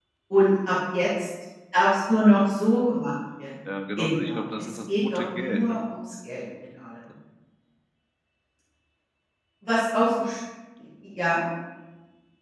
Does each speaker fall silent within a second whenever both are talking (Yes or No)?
No